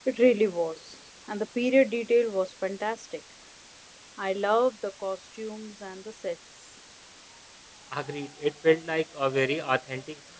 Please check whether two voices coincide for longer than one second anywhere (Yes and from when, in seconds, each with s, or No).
No